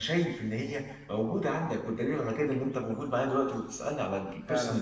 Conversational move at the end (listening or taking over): taking over